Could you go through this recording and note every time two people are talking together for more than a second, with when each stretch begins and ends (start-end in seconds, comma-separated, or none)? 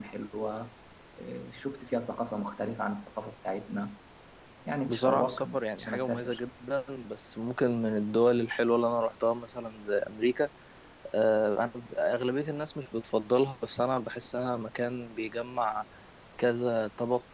4.9-6.4